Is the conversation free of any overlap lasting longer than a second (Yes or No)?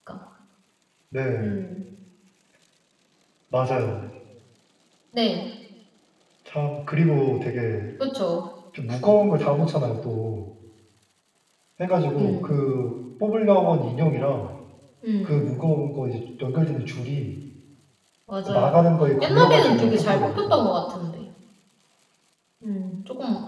No